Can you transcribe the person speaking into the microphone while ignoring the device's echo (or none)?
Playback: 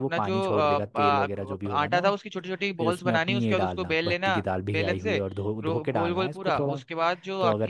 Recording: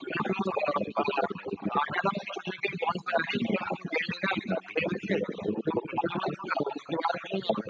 none